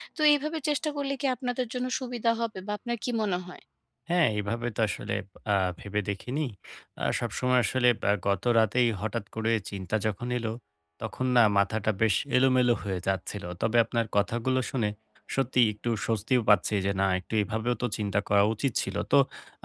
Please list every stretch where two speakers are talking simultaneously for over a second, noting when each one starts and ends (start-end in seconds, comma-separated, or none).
none